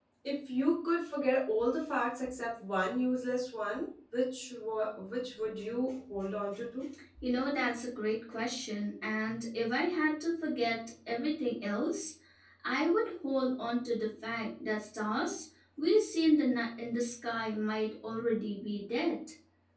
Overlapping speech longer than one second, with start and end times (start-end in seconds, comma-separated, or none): none